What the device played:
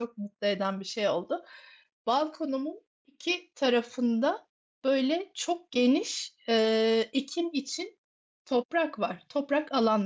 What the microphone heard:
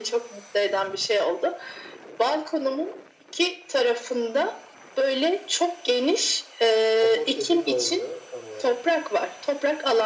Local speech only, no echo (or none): Kompost dediğin ne oluyor, tam olarak?